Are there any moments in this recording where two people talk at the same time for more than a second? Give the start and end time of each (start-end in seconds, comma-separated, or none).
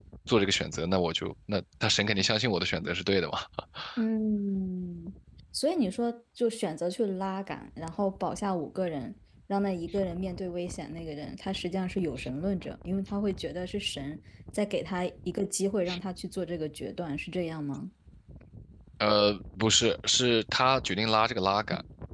none